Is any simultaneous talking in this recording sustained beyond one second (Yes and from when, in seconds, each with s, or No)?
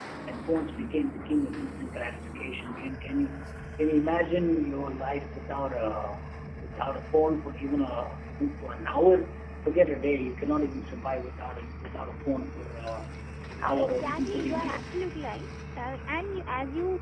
Yes, from 13.8 s